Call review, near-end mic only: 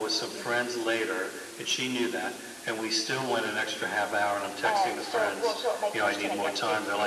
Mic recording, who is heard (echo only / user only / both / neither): echo only